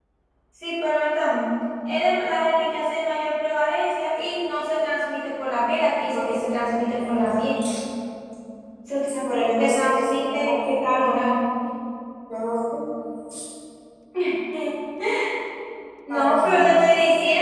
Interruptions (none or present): present